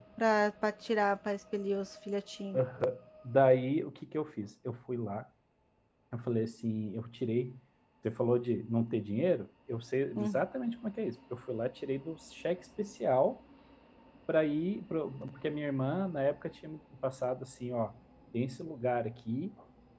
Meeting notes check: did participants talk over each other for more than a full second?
No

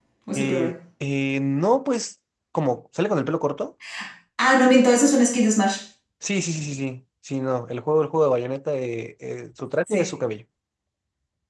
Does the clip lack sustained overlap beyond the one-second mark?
Yes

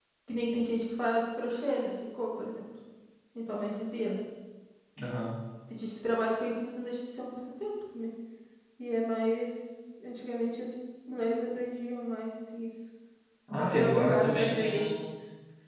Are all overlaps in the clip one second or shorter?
No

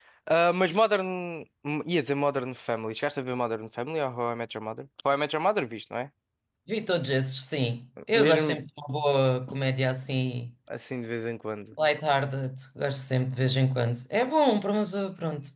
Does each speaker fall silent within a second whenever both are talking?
Yes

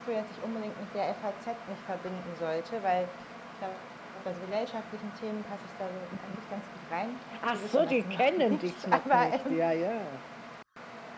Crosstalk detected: Yes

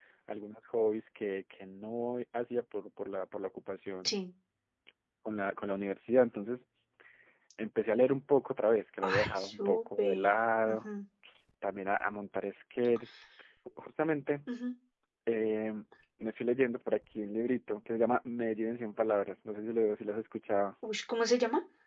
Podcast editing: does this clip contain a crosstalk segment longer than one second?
Yes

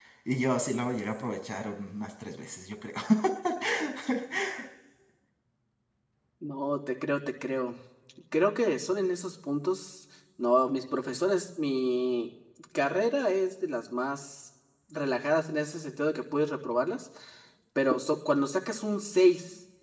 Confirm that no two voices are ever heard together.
Yes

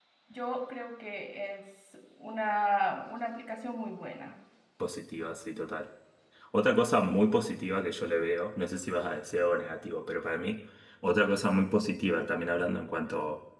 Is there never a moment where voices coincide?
Yes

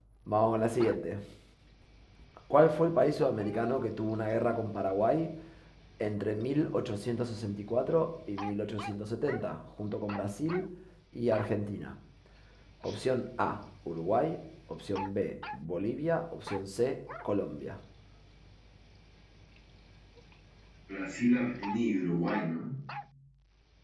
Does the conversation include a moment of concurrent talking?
No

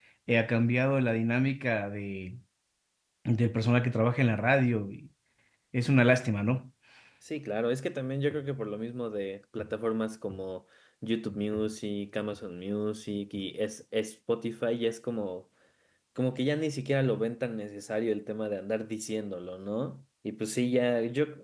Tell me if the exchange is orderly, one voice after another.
Yes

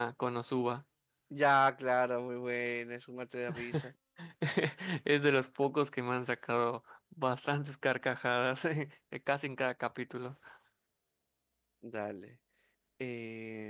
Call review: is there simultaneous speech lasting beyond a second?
No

